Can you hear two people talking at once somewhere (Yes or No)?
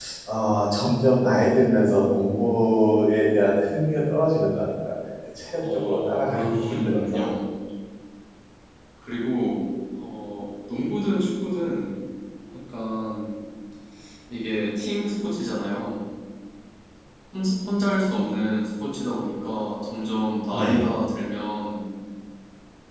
Yes